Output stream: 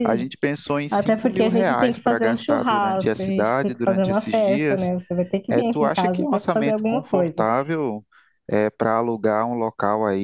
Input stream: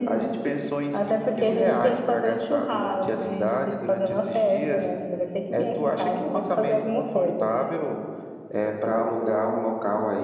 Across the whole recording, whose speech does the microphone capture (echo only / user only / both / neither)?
echo only